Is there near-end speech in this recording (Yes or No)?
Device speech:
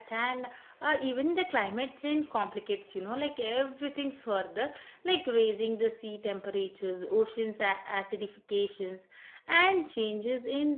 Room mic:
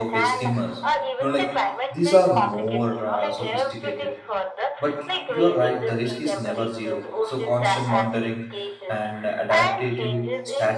Yes